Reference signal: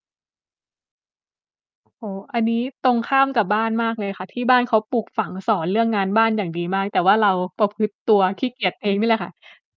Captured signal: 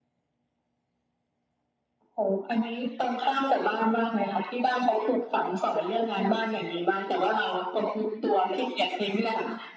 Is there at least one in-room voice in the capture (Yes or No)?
No